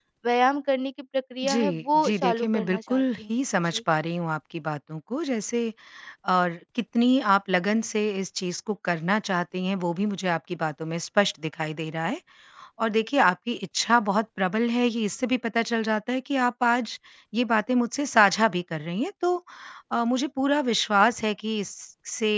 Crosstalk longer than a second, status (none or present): present